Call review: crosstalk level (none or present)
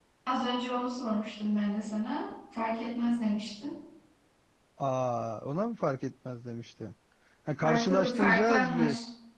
present